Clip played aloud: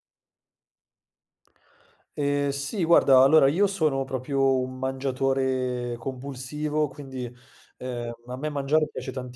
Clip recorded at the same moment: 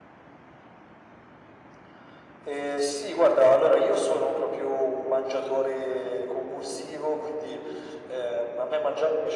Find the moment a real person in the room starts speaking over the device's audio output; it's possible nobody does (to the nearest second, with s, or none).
none